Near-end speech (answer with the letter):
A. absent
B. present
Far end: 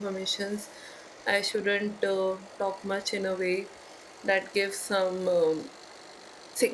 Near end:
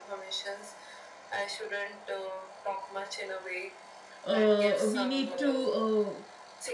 B